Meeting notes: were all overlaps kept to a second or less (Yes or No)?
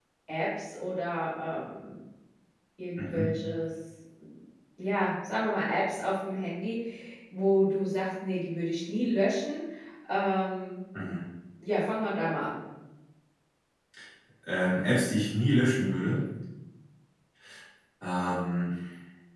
Yes